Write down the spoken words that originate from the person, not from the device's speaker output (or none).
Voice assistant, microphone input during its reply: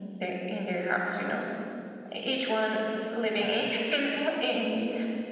Oh,